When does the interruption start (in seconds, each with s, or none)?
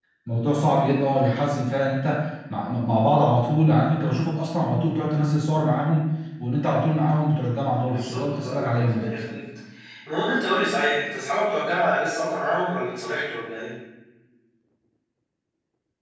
7.9 s